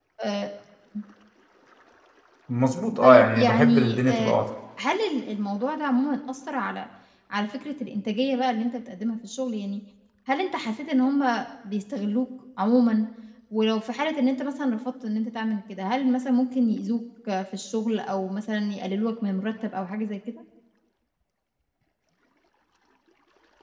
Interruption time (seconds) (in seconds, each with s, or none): 3.0 s